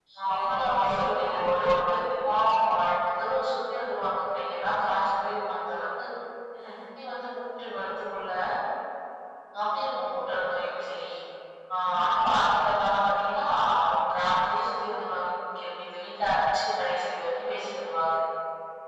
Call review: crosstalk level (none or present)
present